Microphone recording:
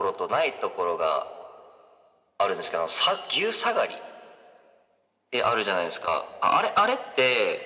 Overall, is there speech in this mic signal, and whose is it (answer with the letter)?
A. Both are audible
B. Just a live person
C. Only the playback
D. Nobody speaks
C